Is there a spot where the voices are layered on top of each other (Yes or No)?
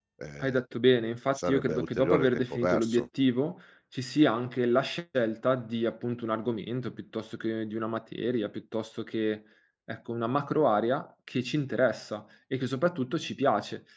Yes